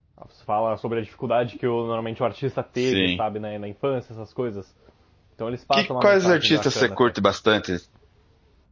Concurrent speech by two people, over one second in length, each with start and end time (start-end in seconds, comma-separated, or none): 5.7-7.1